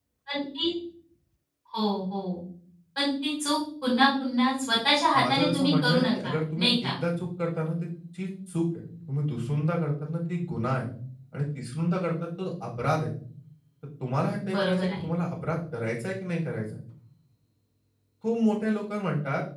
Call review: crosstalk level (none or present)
present